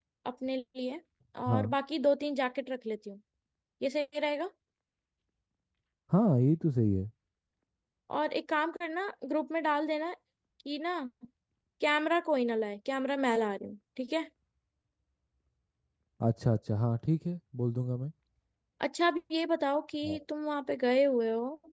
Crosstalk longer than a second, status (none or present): none